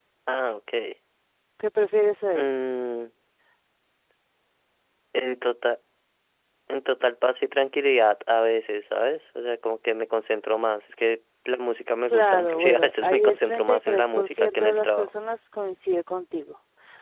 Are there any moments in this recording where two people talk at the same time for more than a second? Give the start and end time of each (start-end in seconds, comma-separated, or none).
12.1-15.1